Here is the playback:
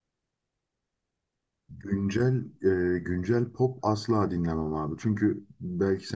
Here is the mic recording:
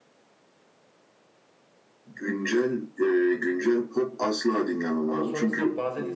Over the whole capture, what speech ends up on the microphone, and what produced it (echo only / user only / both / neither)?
both